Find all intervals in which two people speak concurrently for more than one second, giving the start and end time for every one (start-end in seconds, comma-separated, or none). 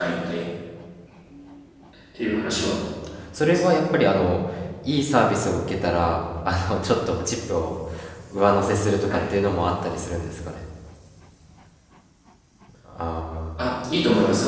none